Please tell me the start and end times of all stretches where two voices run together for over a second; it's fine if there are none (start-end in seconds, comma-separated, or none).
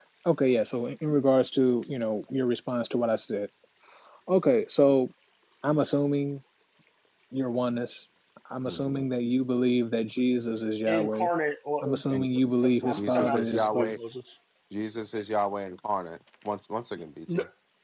11.8-14.0